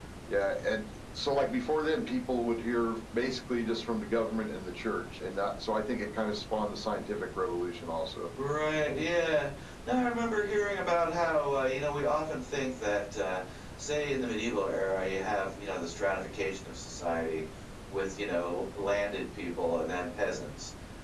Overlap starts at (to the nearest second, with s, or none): none